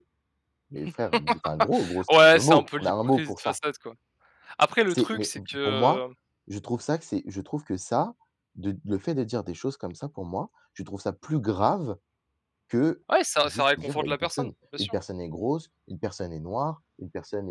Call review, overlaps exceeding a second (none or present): present